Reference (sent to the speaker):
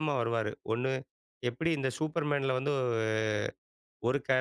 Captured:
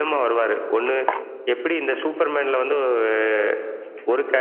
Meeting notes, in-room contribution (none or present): none